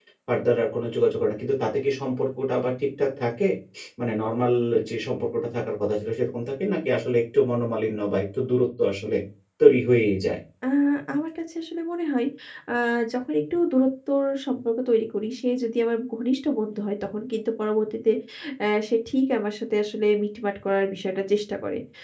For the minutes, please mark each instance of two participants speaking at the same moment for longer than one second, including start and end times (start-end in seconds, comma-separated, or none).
none